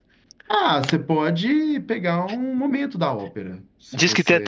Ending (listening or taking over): taking over